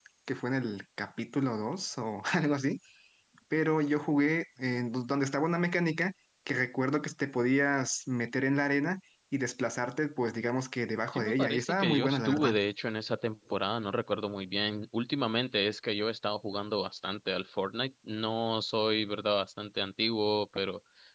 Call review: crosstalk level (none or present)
present